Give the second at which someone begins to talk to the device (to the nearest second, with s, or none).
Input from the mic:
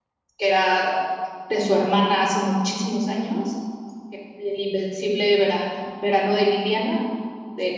0 s